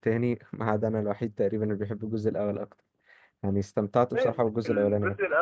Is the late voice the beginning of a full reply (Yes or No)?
Yes